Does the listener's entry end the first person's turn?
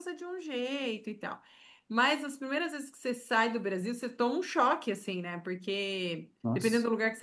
No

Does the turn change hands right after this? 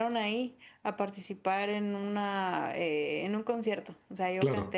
No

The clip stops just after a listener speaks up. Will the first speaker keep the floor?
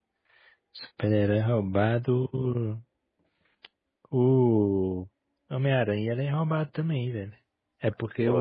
Yes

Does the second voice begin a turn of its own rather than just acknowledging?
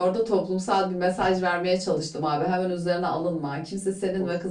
No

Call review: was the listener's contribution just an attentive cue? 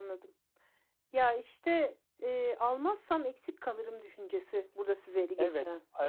No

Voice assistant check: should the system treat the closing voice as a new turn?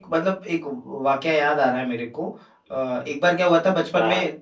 No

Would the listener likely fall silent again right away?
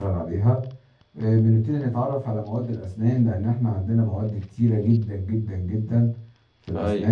Yes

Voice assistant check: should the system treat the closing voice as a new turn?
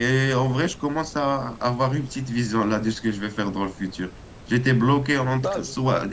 No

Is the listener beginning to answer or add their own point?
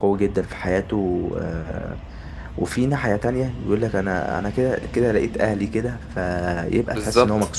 Yes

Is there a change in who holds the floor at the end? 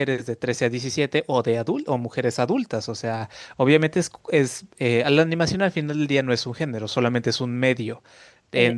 No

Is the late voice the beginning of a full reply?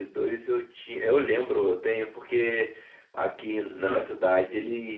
No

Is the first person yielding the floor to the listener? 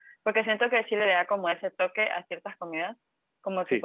No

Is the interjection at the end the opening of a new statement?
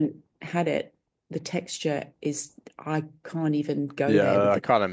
Yes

